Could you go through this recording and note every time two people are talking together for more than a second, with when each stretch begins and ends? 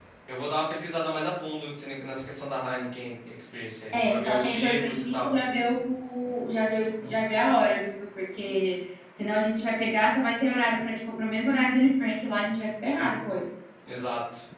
3.9-5.3

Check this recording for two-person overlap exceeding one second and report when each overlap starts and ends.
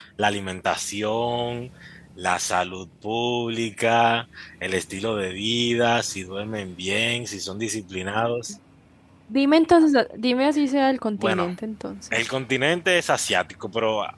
none

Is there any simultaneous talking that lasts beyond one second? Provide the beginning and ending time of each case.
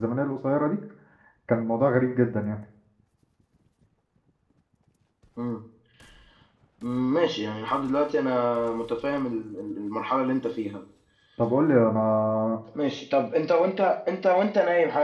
none

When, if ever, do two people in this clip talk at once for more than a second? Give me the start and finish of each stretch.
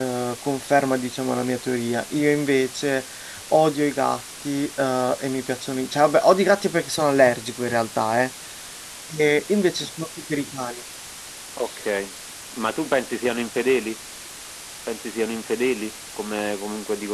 none

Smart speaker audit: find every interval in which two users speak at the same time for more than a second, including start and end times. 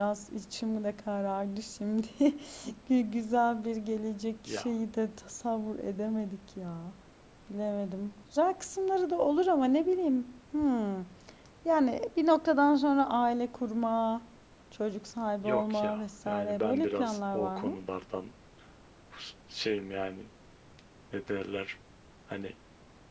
15.4-17.8

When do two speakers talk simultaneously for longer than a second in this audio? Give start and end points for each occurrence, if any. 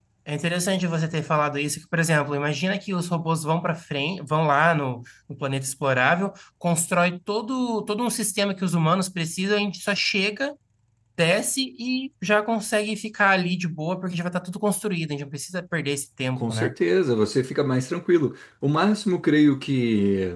none

